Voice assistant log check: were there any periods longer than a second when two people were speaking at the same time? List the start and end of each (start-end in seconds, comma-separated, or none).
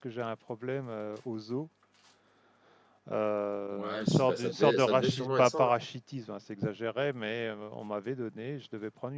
3.7-5.7